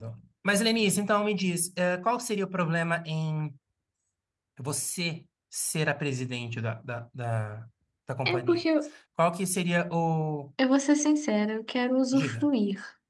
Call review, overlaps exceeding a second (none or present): none